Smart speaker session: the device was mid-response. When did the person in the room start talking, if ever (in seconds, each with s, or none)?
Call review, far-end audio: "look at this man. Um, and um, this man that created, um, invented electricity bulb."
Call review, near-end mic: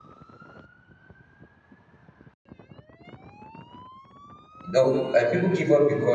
4.6 s